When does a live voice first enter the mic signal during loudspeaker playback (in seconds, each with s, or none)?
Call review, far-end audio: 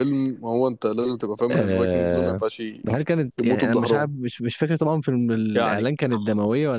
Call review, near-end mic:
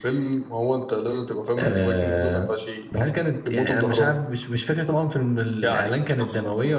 none